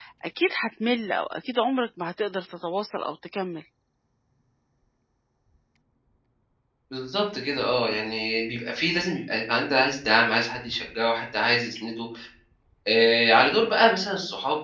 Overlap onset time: none

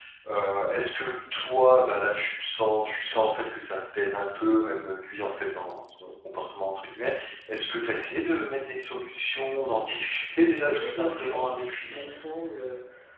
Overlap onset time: 11 s

